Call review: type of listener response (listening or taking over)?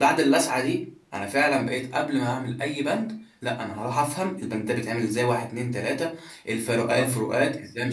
listening